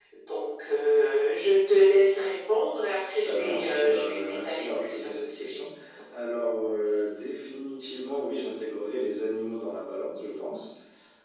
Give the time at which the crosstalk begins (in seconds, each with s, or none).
3.0 s